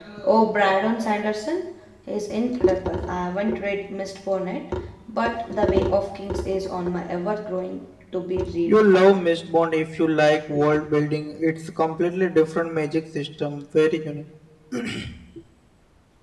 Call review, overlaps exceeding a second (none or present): none